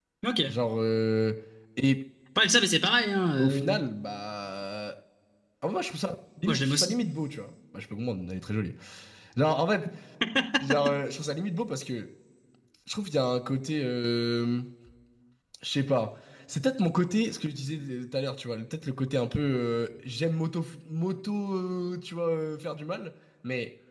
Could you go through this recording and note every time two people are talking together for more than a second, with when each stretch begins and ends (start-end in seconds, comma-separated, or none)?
none